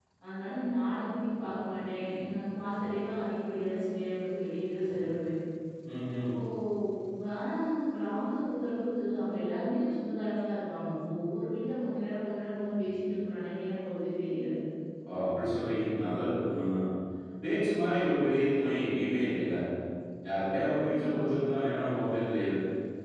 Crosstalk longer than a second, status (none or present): none